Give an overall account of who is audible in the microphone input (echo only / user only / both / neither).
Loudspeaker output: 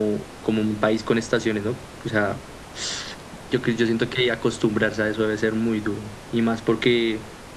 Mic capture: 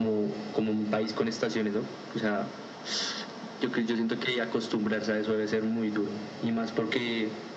echo only